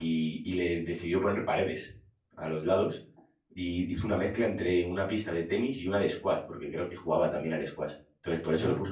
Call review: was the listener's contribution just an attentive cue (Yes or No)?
Yes